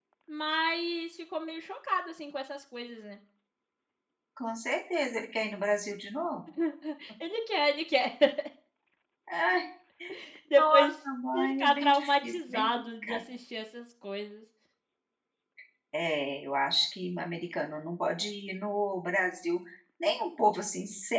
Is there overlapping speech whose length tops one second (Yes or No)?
Yes